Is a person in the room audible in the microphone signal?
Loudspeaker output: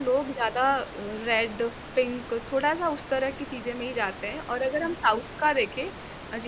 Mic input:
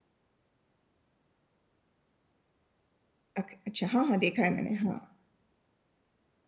Yes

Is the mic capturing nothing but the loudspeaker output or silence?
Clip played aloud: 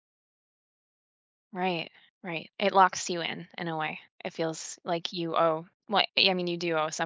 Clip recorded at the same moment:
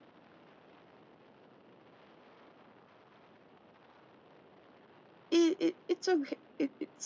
No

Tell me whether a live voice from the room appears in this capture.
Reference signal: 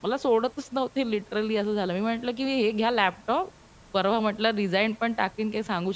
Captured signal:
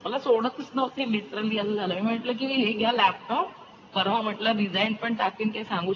No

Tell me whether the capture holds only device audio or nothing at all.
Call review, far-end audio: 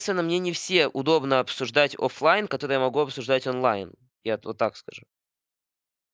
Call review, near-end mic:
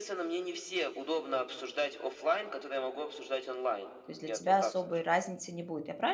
No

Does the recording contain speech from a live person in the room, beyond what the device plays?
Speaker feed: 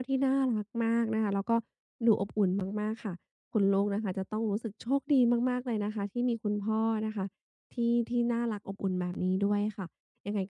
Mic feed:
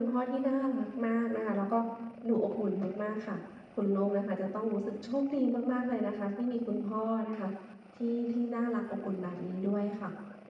No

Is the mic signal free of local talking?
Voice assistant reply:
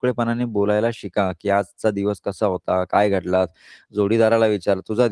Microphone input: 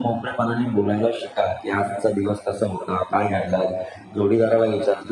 Yes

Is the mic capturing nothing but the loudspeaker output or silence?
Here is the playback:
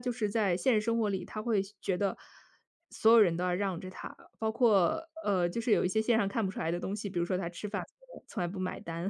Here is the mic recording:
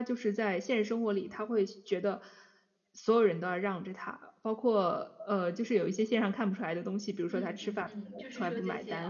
No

